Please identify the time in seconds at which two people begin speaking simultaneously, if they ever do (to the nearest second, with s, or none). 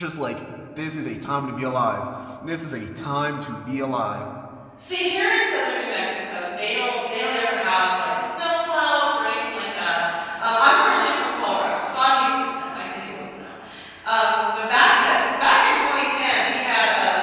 none